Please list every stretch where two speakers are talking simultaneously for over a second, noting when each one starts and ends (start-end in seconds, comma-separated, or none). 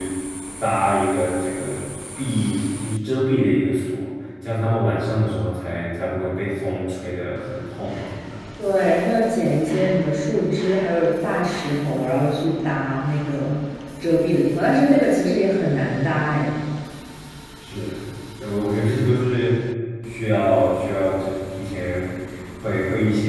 none